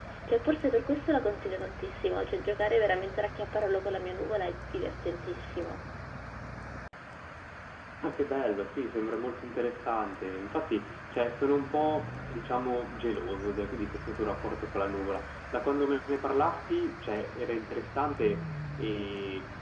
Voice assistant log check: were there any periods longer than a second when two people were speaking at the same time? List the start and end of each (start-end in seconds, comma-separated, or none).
none